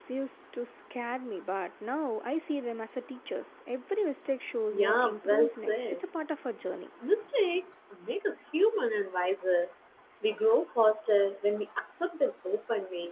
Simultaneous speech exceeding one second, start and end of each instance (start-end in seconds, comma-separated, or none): 4.7-6.0